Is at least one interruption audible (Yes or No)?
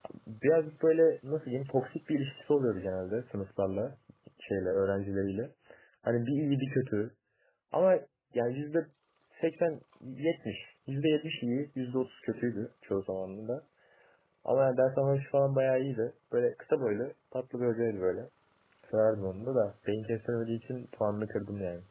No